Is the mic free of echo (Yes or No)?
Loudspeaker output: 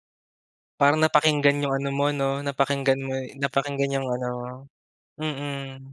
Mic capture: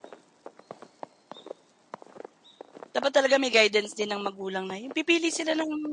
Yes